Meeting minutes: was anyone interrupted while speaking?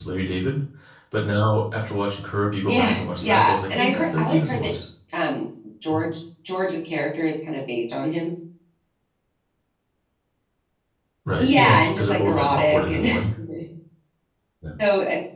Yes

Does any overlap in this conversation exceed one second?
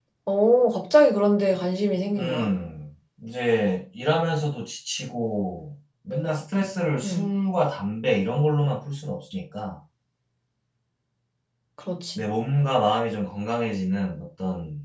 No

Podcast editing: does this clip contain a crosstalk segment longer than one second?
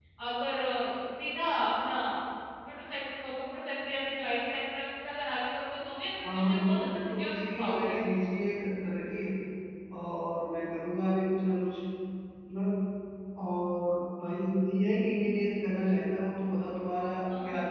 Yes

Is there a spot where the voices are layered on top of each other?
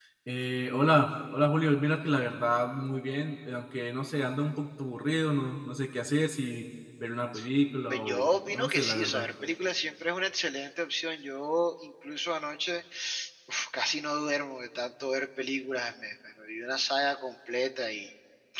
Yes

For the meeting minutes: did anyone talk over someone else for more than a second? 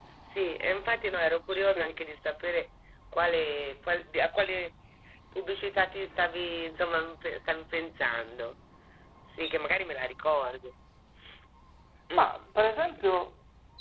No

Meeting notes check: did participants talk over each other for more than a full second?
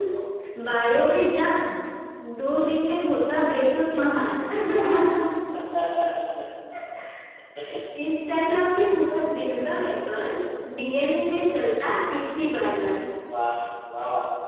No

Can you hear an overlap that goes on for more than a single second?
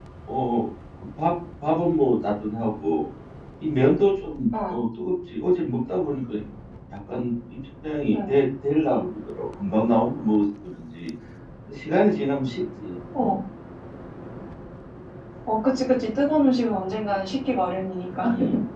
No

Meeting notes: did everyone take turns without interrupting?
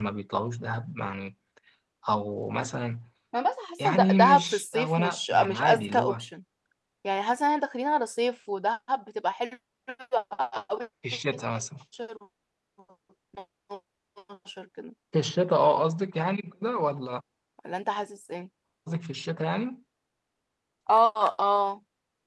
No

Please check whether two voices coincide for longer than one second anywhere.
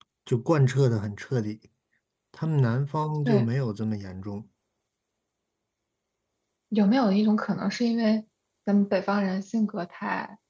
No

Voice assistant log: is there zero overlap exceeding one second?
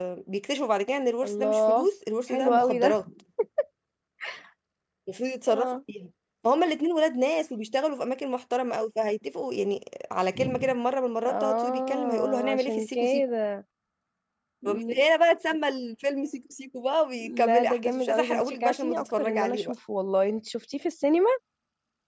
No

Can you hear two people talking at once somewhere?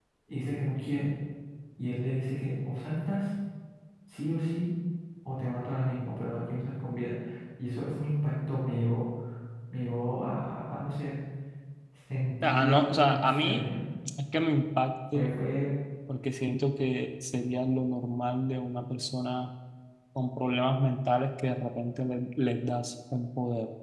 Yes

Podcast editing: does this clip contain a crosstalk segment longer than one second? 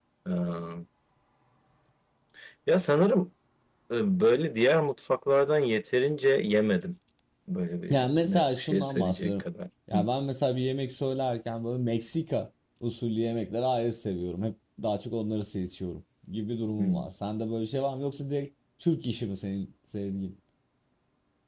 Yes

